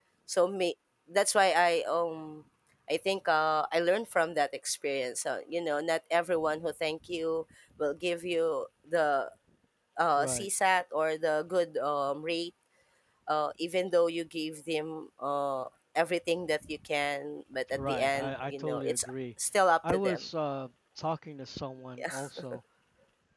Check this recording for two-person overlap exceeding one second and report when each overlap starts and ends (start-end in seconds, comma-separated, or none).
17.7-19.1